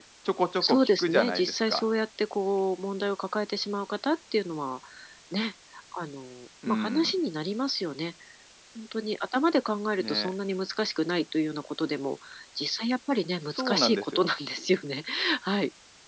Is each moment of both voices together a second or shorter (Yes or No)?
No